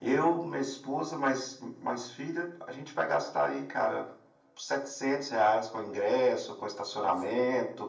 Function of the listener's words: listening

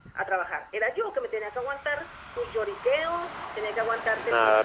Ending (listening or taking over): taking over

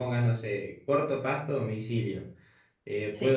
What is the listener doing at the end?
listening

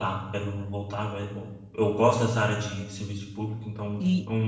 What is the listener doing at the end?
taking over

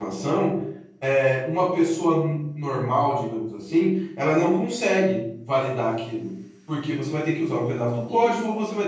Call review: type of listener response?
listening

